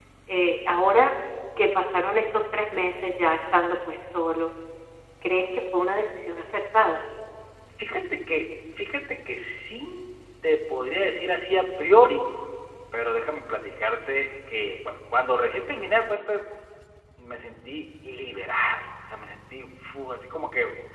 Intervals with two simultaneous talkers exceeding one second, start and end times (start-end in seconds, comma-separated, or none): none